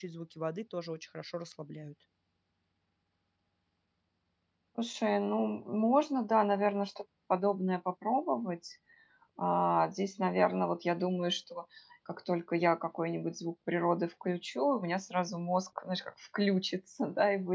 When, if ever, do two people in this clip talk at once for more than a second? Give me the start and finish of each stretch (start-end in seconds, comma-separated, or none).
none